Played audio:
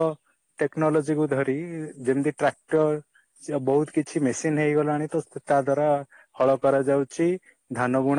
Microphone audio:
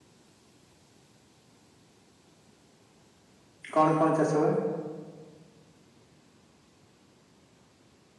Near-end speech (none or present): present